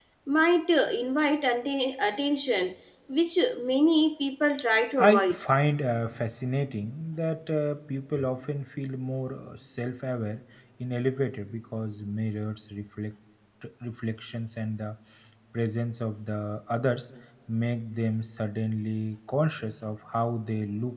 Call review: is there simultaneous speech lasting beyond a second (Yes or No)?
No